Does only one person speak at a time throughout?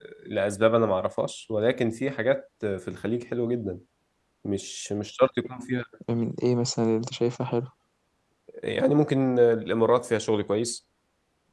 Yes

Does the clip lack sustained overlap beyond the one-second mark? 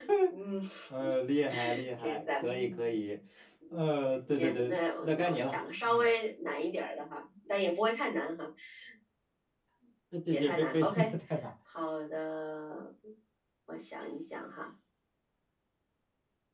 No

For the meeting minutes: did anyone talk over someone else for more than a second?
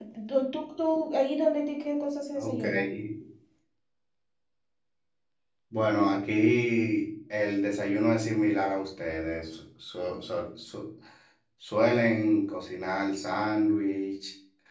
No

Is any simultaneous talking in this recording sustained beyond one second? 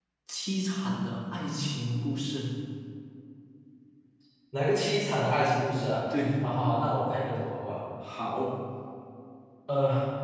No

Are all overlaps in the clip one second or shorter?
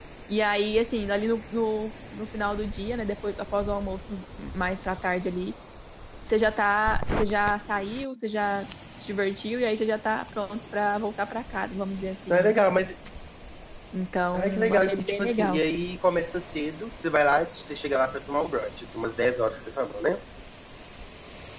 No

